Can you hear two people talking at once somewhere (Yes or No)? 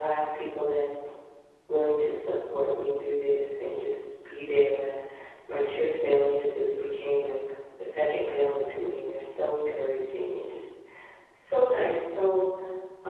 No